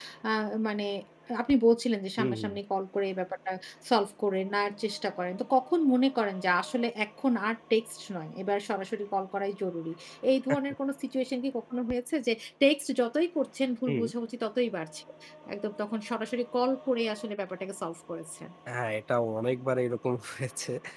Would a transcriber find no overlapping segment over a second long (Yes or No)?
Yes